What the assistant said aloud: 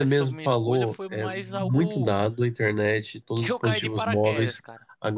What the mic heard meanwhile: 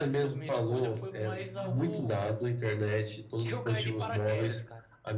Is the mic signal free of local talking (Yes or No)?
Yes